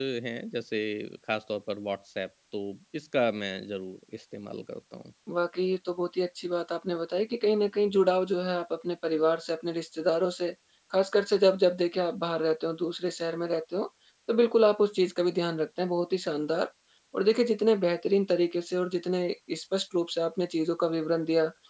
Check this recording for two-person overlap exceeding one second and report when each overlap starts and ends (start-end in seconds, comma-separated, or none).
none